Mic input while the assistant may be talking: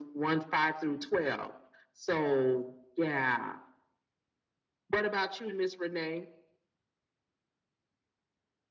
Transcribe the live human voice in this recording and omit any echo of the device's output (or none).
none